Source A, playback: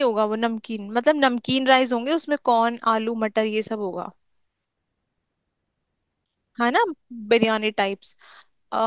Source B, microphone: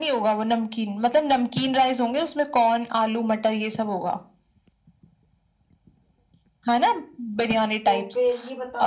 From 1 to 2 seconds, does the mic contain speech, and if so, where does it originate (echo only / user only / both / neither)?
echo only